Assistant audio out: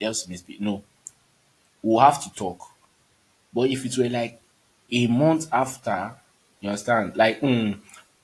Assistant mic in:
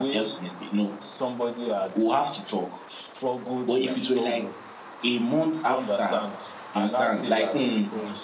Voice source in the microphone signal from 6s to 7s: both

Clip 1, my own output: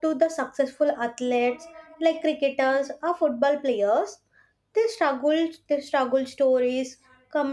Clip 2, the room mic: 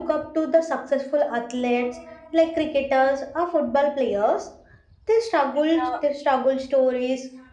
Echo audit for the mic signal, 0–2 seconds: echo only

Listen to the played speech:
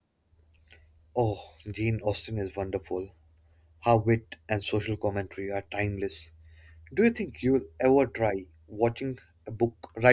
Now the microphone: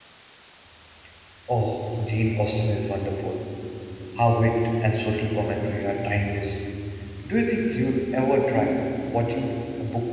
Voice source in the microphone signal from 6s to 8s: echo only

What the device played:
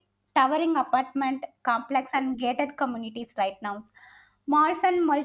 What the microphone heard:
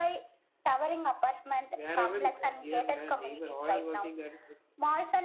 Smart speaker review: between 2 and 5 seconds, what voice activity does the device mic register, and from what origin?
both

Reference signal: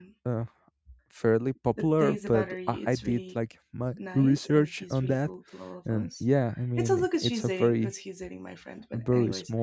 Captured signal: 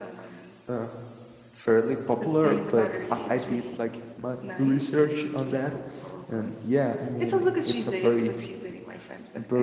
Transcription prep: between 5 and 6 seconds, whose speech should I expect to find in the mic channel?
echo only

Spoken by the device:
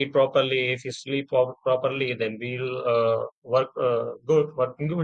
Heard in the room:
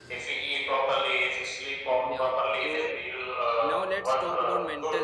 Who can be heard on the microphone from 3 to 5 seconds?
both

